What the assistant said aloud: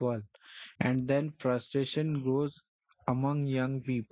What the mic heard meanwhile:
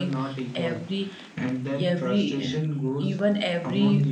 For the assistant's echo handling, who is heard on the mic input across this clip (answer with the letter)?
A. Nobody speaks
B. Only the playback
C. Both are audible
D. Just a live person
C